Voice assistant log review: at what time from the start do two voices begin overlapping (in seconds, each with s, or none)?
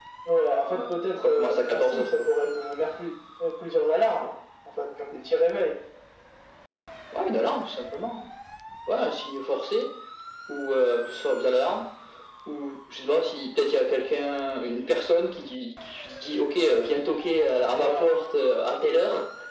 0.7 s